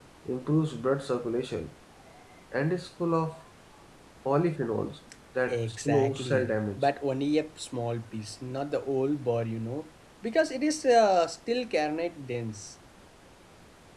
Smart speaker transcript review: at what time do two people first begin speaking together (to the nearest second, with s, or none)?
5 s